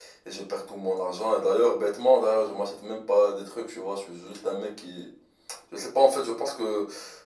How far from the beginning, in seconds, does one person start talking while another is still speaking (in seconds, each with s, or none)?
none